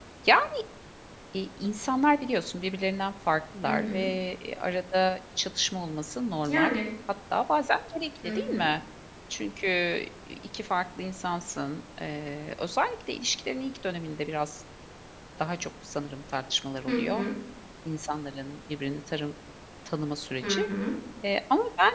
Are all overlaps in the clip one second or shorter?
Yes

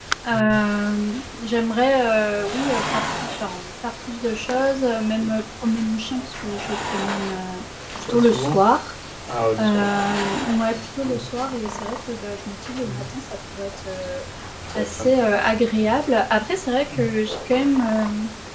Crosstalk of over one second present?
No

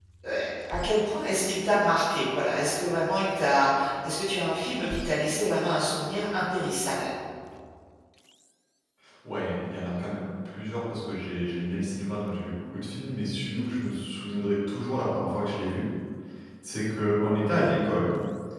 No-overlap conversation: Yes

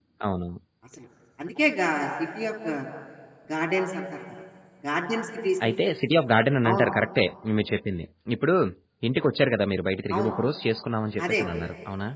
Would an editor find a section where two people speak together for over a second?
No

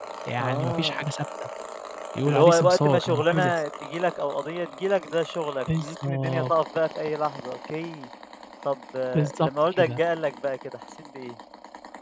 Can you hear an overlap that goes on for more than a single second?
Yes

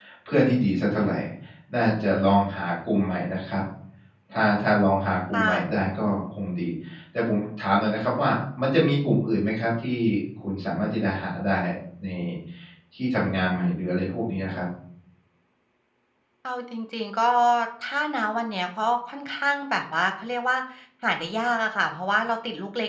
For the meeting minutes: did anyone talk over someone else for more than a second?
No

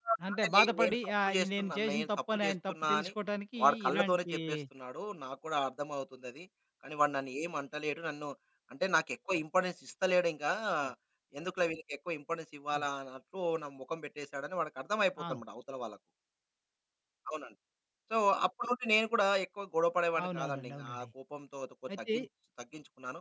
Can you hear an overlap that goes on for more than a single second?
Yes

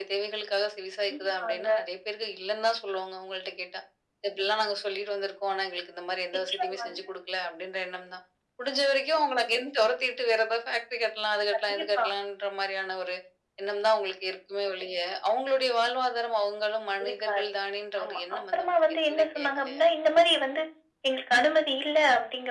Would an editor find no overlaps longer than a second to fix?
No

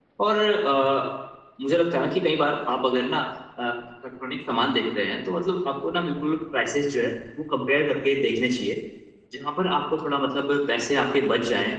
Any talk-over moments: No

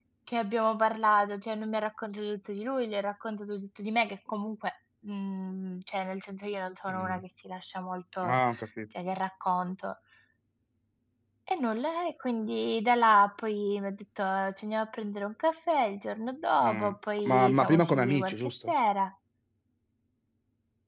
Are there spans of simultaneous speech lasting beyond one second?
Yes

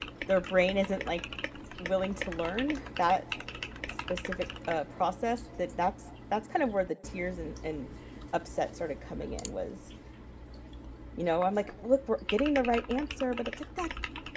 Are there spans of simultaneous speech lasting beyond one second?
No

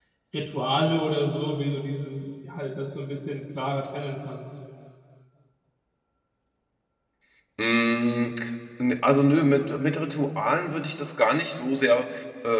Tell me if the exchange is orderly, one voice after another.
Yes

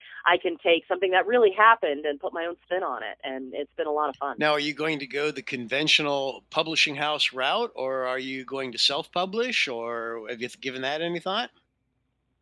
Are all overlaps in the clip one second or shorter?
Yes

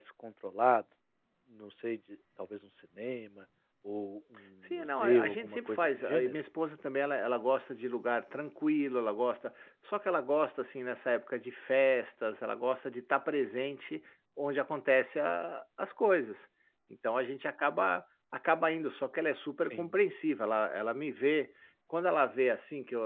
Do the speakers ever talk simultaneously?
Yes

